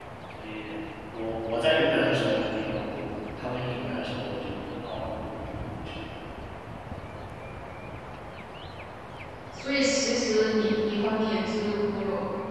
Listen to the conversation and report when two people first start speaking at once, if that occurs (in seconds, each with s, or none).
none